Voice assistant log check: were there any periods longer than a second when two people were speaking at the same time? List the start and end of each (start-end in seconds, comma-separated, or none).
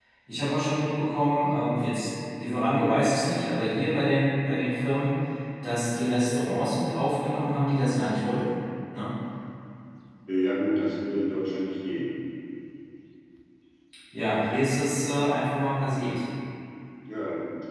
none